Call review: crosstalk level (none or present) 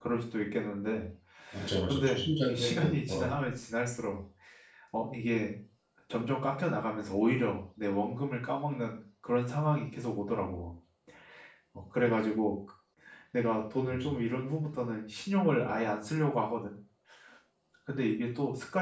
present